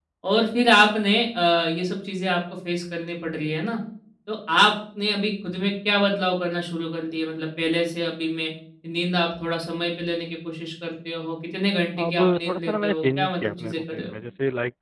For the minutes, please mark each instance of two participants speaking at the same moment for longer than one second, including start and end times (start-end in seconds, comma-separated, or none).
12.0-14.1